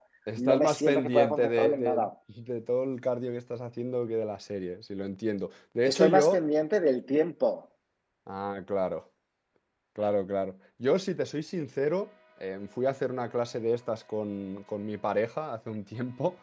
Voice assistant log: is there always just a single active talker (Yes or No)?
No